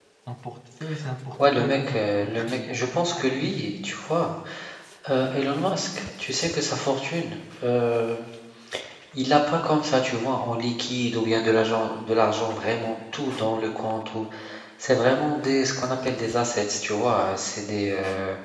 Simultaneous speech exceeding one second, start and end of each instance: 1.6-3.5

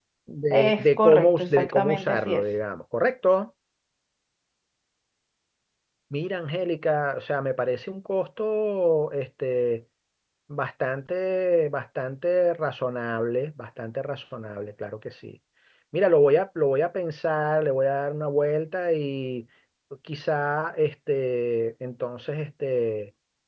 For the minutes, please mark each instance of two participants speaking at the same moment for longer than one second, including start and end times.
0.5-2.4

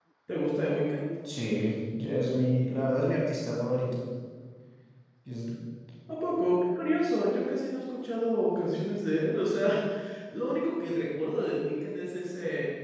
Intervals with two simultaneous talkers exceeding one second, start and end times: none

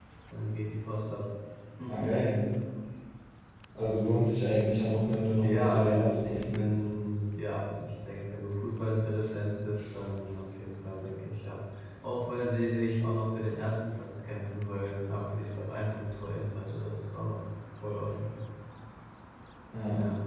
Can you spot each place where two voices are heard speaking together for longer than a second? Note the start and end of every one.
5.4-6.6

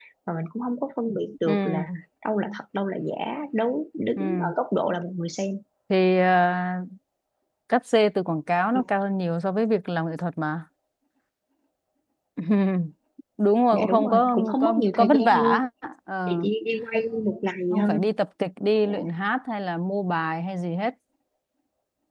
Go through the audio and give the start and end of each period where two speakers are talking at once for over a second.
13.7-15.6

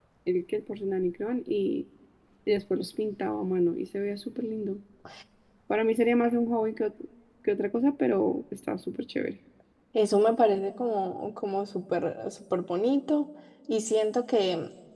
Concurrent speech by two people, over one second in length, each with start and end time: none

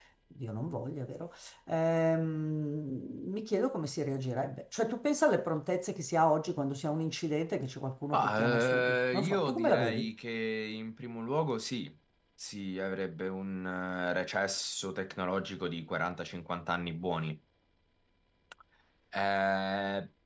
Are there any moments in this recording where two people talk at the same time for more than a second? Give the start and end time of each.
8.1-10.1

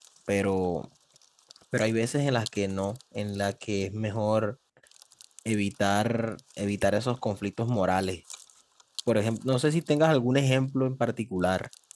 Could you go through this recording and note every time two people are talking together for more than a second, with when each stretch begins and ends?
none

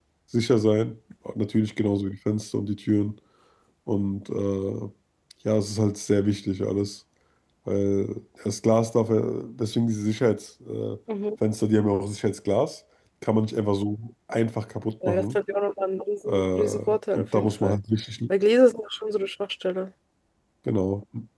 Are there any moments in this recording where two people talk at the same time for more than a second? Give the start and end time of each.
16.3-17.8

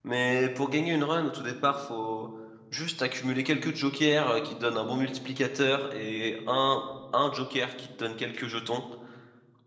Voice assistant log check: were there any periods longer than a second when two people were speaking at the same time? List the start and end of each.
none

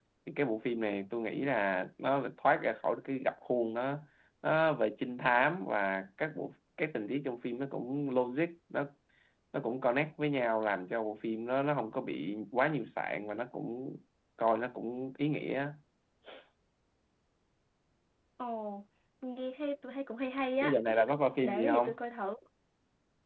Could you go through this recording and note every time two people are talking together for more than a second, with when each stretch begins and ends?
none

